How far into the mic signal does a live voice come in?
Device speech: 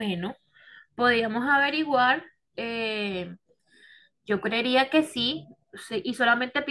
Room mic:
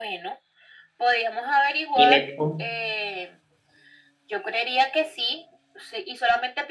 1.9 s

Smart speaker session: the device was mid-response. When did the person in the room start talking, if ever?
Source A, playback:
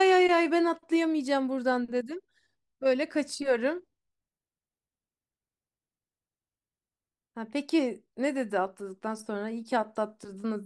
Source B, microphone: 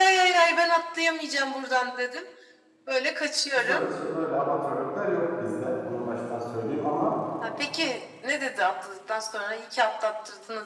3.5 s

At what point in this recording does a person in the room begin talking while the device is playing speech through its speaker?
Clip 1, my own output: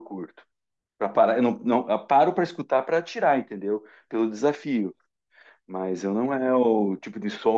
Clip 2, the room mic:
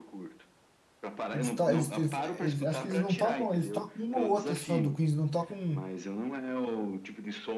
1.3 s

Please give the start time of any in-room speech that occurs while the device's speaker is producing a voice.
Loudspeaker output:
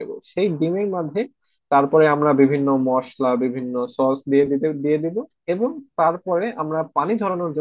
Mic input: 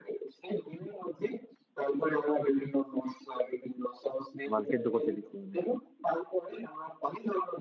4.5 s

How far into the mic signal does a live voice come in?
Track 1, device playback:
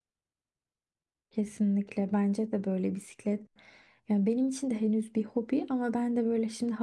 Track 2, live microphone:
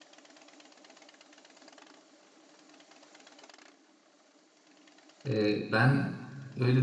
5.2 s

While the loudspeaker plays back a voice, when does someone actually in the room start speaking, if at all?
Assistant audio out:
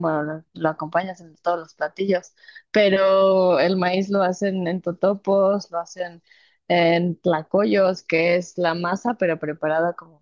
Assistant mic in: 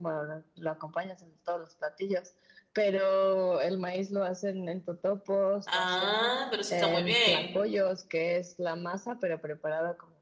5.7 s

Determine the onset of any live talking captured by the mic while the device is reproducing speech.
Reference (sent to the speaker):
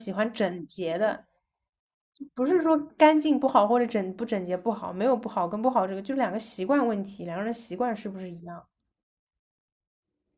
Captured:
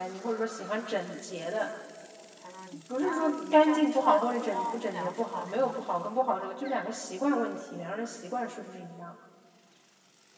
2.4 s

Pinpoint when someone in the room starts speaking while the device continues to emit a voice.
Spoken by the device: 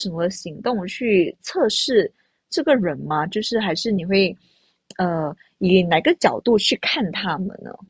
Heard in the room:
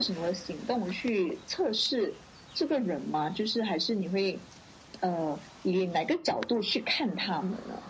none

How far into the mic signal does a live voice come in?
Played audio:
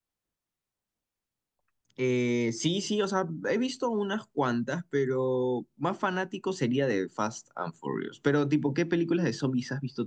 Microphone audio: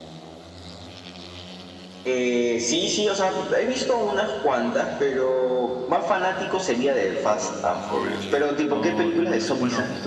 8.7 s

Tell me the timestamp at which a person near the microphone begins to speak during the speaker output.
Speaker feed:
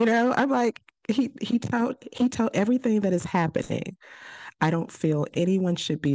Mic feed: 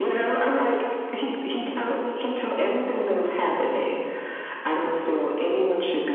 none

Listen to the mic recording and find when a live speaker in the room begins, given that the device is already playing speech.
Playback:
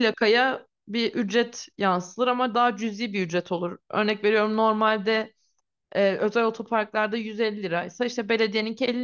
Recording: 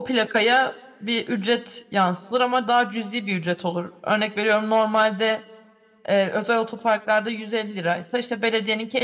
none

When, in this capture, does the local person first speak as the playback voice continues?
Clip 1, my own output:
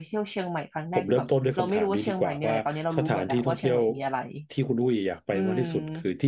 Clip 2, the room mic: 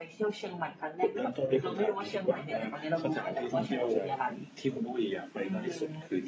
3.5 s

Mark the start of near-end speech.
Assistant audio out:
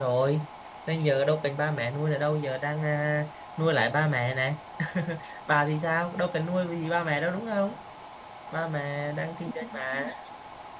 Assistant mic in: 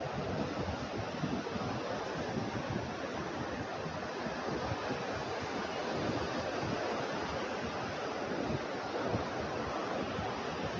none

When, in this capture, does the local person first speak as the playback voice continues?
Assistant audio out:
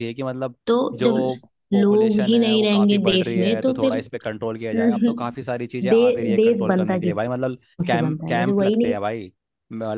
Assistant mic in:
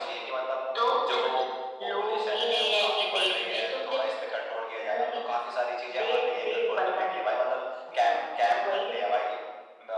none

